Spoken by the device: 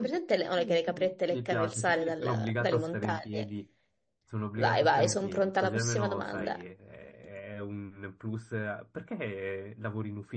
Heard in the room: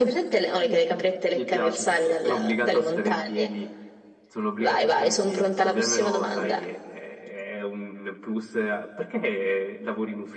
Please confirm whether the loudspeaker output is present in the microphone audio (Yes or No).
Yes